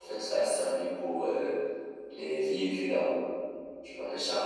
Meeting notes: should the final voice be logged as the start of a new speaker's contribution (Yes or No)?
No